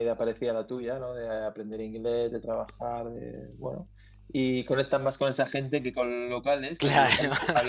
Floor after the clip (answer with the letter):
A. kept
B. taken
A